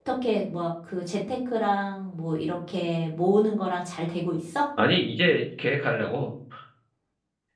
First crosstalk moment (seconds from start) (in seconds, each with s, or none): none